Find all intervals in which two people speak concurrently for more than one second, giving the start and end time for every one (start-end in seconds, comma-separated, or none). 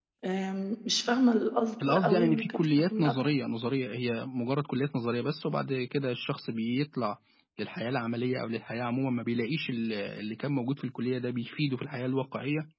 1.9-3.1